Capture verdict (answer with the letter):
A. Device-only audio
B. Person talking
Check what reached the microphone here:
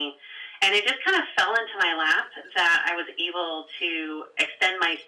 A